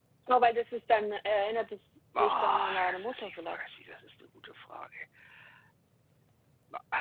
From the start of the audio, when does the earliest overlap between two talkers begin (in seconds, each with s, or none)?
2.1 s